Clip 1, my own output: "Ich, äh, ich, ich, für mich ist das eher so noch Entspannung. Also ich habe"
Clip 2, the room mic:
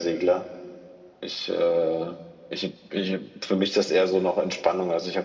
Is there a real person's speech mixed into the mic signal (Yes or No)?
No